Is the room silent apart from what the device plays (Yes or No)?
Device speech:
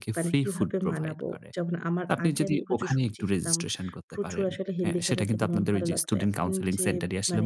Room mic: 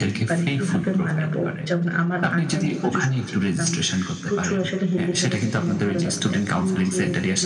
Yes